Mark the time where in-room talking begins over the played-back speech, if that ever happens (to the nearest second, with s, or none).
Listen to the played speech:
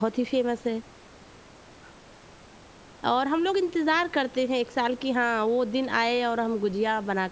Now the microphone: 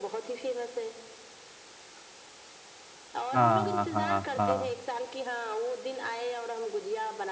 3 s